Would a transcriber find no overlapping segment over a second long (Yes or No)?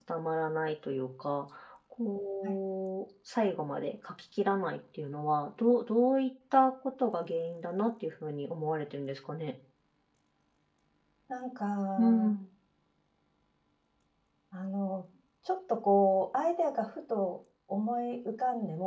Yes